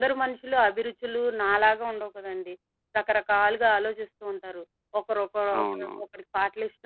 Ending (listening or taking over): listening